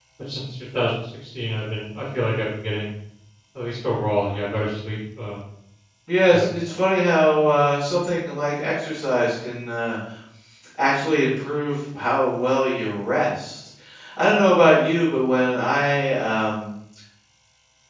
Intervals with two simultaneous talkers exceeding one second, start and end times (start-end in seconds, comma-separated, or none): none